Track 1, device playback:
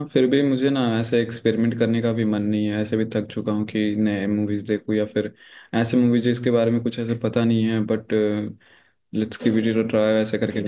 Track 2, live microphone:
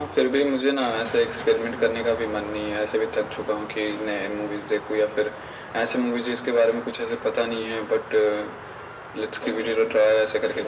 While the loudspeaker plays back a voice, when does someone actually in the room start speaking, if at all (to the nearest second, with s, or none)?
none